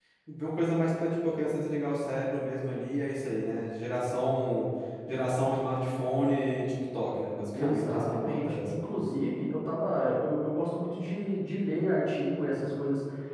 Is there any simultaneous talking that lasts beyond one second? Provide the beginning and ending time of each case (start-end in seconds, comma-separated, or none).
7.5-8.9